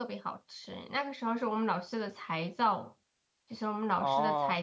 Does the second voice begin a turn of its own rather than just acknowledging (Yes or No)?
No